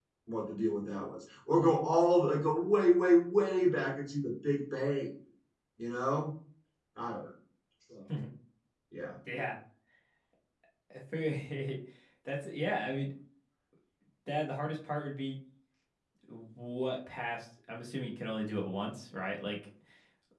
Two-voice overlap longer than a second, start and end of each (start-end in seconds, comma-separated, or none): none